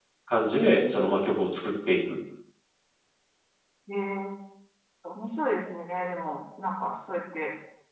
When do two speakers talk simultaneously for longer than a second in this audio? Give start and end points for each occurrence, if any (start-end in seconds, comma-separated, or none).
none